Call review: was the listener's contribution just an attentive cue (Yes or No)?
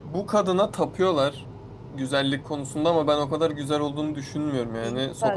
Yes